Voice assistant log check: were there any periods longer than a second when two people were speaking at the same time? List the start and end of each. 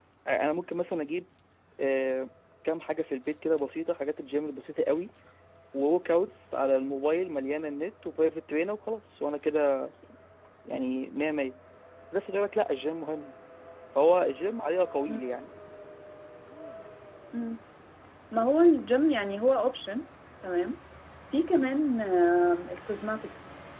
none

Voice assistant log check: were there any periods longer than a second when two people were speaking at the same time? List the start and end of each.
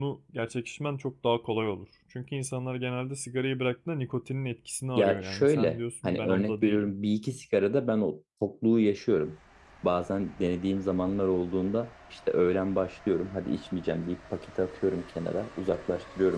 5.0-6.9

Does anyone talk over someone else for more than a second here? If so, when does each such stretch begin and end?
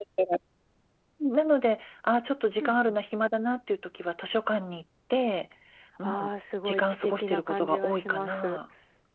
6.7-8.6

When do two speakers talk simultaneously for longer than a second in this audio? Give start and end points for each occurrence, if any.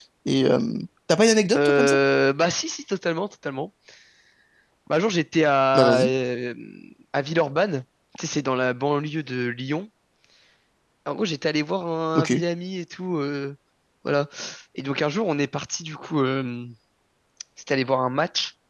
none

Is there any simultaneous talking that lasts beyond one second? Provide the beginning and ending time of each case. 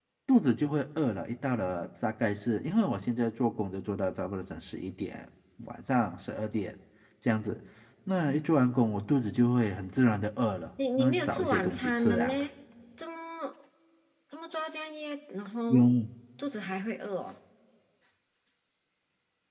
11.0-12.5

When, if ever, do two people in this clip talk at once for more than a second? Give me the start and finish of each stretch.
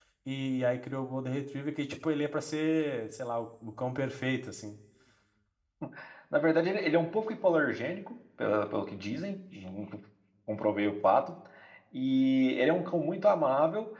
none

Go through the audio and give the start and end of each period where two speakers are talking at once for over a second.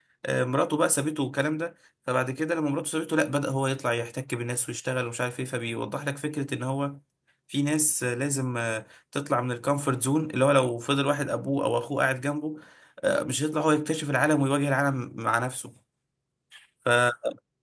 none

